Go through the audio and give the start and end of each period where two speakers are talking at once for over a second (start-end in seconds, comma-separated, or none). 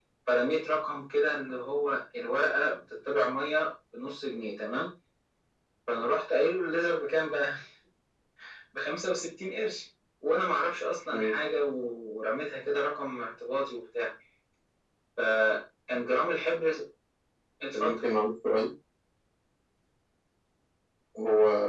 none